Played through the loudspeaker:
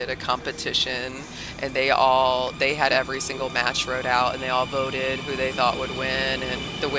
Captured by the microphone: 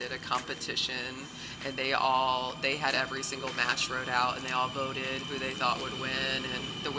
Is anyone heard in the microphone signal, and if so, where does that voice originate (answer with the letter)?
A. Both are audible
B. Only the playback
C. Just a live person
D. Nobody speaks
B